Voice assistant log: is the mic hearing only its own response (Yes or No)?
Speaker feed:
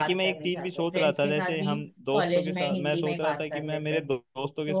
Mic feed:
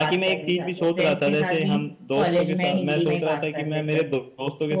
Yes